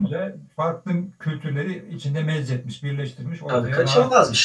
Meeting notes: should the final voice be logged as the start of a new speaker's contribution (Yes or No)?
Yes